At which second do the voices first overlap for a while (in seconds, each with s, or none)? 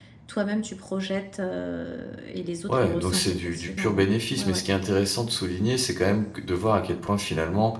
2.7 s